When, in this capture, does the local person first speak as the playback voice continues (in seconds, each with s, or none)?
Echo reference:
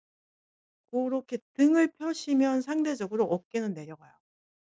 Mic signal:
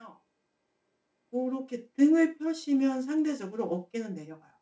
none